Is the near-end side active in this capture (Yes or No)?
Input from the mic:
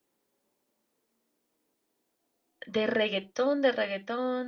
Yes